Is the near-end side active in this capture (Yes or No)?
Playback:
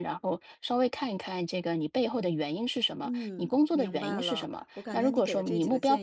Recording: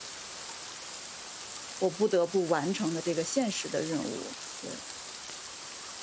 Yes